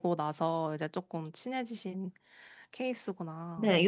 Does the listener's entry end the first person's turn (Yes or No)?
Yes